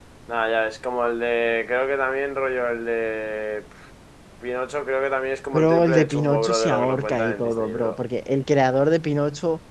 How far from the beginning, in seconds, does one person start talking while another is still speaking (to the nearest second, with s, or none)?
6 s